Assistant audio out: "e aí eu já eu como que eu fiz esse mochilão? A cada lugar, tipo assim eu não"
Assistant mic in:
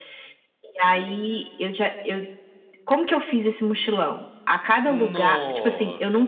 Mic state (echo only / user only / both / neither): both